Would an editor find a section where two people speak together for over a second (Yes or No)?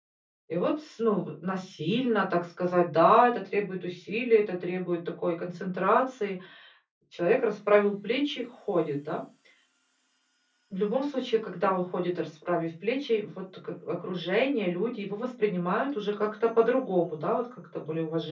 No